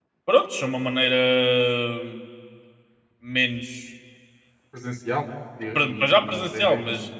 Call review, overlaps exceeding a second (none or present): present